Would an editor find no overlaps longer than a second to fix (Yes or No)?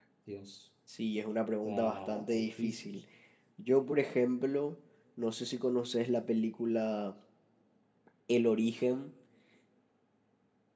No